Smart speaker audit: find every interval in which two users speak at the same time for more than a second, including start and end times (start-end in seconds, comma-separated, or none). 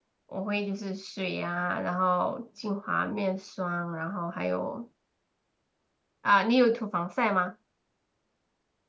none